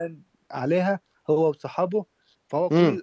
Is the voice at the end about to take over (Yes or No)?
No